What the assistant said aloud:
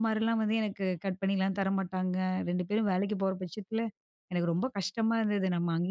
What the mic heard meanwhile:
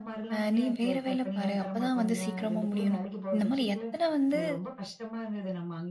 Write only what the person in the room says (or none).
அ நீ வேற வேல பாரு. அப்பதான் வந்து சீக்கிரமா முடியும்ன்னு." இந்த மாரி எத்தன வந்து